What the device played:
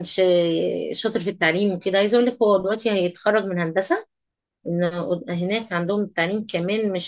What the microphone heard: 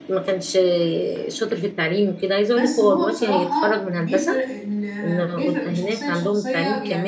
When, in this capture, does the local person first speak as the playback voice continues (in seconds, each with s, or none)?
2.5 s